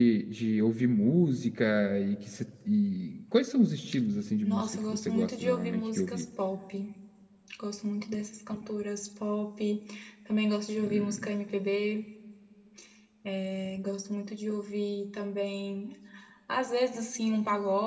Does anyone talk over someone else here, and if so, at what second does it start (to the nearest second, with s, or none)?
4 s